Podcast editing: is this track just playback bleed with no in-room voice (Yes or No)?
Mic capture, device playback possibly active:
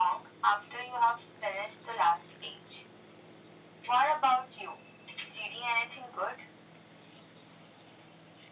Yes